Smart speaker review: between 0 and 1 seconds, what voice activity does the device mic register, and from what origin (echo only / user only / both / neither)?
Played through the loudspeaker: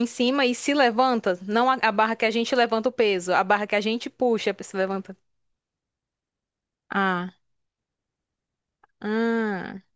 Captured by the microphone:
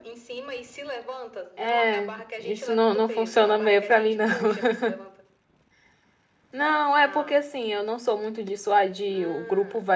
echo only